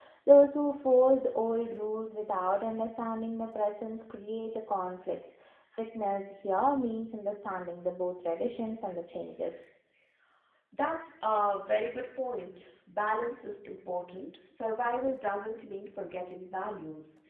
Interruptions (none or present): none